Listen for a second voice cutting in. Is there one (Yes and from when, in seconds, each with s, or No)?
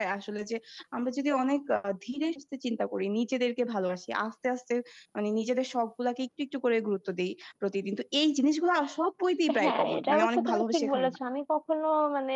Yes, from 9.5 s